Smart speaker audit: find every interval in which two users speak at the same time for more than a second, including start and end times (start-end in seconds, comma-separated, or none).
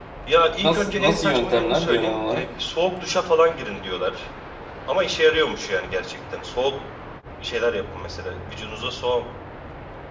0.6-2.4